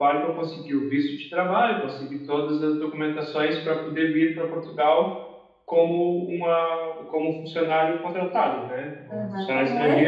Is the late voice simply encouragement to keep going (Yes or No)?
No